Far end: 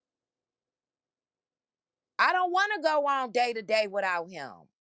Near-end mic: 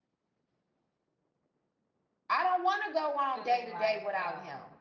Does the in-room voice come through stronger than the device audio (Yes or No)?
No